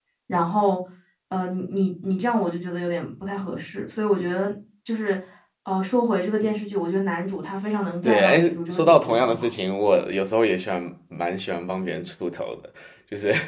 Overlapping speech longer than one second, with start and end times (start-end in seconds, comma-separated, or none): 8.0-9.5